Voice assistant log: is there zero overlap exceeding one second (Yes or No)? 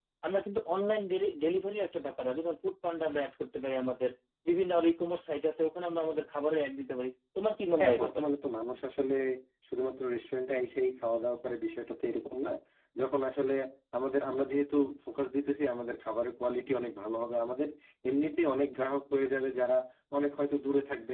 Yes